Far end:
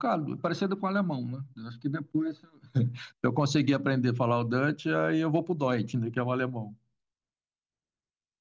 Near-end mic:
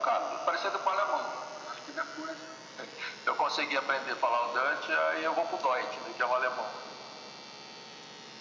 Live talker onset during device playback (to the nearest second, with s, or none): none